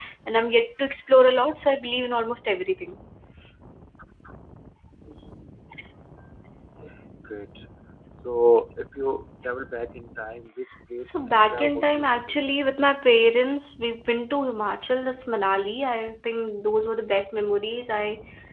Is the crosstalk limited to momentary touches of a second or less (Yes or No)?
No